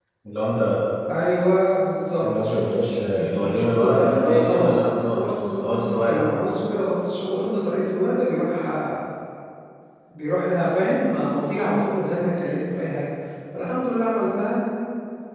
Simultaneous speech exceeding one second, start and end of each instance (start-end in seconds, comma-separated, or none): 3.4-6.4